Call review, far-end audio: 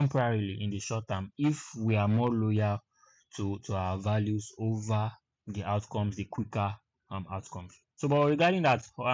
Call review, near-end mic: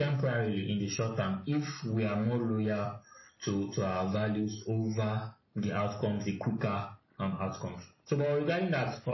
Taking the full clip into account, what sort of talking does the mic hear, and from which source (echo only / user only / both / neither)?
echo only